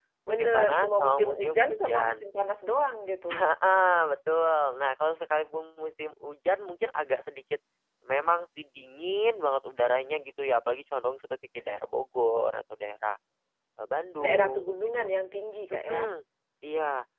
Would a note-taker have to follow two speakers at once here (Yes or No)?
Yes